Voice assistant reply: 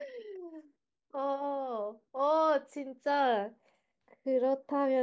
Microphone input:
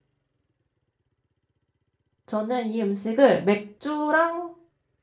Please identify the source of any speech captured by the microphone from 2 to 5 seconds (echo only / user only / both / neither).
user only